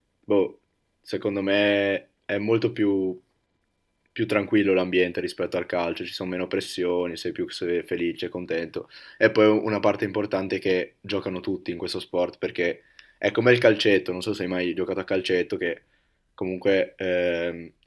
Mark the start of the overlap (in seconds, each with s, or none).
none